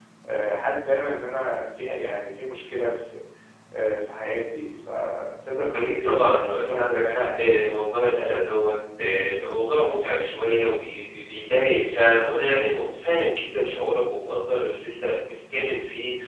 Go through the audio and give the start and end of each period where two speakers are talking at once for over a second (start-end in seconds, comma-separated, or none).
5.7-7.8